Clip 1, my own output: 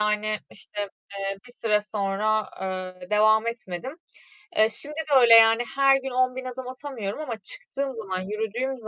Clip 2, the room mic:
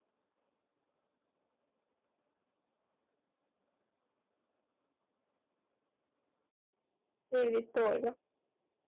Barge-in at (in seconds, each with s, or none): 7.3 s